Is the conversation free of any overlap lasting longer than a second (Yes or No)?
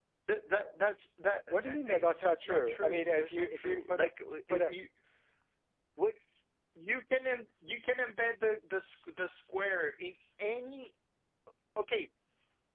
No